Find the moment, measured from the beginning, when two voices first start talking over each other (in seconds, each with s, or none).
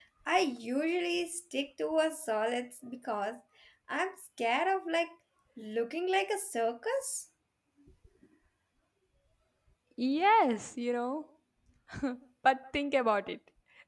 none